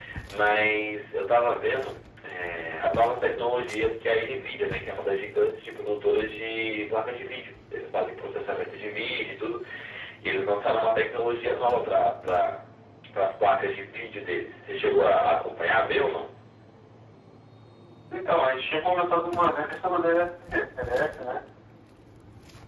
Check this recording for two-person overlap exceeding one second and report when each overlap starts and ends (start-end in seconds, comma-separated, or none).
none